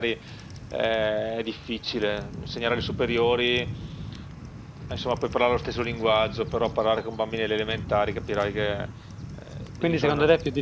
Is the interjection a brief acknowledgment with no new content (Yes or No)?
No